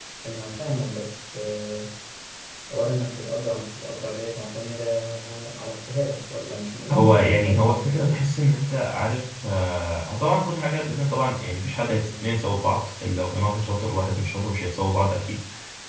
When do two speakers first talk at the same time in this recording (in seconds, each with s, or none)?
6.9 s